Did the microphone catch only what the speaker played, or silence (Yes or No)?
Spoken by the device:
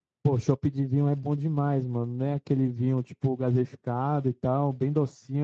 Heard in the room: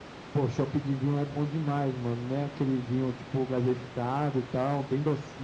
Yes